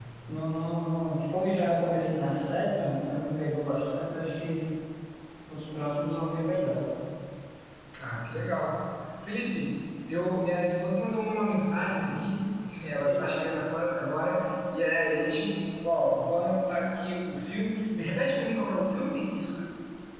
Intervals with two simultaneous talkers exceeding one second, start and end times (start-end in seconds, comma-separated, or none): none